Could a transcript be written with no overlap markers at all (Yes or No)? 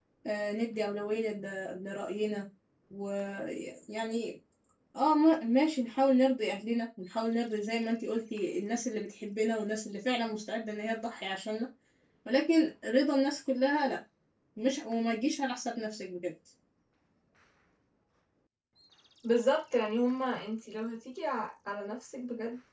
Yes